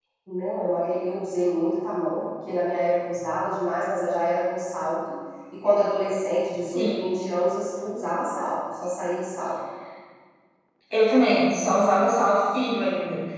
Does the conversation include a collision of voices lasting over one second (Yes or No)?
No